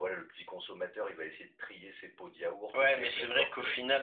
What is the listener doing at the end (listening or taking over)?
taking over